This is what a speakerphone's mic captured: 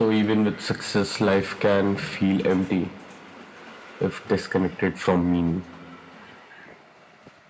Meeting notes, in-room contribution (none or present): none